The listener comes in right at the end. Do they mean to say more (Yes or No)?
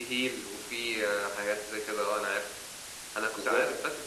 No